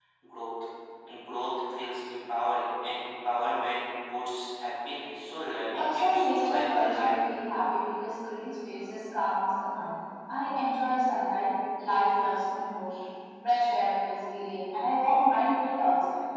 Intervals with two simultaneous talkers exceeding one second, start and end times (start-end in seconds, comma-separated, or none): 5.7-7.2